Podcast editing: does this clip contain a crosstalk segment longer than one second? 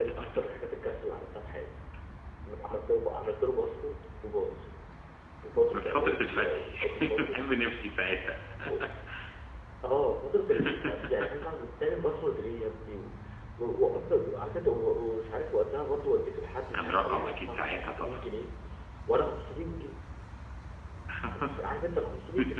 Yes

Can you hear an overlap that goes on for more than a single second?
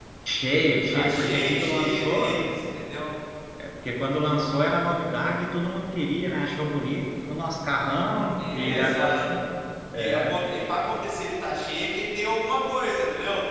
Yes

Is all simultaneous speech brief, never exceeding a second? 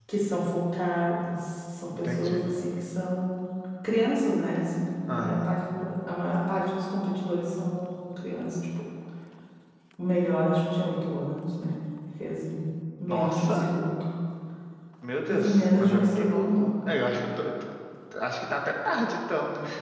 No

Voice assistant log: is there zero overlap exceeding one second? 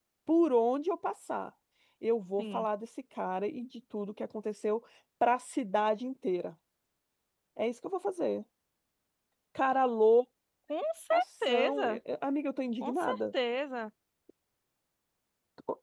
Yes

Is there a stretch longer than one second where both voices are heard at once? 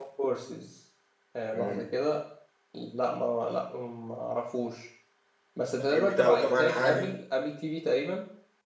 Yes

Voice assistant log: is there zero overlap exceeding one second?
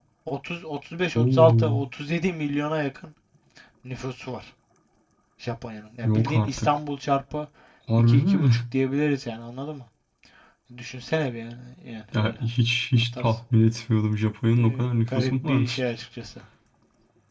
No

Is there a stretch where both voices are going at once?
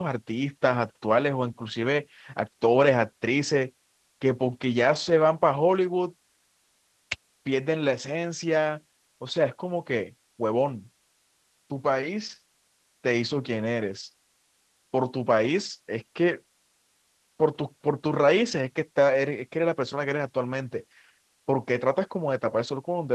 No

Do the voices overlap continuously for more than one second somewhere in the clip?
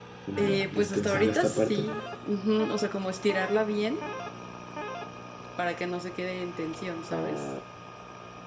Yes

